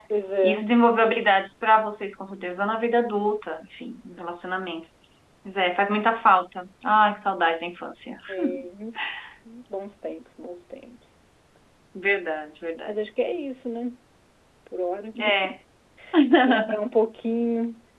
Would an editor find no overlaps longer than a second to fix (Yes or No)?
Yes